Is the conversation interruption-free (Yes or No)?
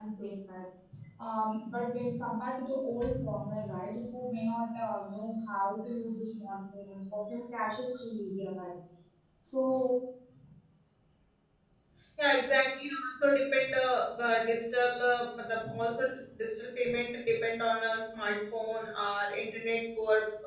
Yes